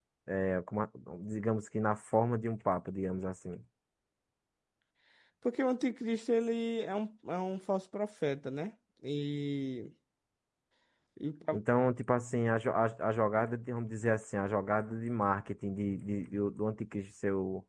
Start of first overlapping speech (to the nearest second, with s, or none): none